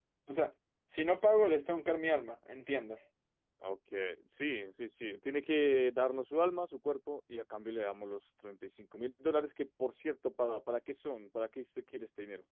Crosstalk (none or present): none